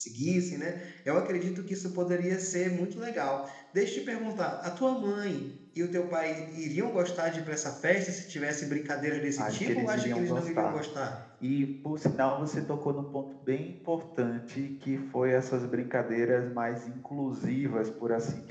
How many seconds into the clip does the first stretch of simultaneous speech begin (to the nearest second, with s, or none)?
9 s